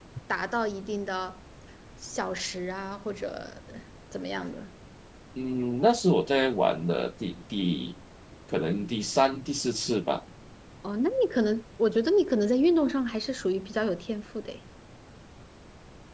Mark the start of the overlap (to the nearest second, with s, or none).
none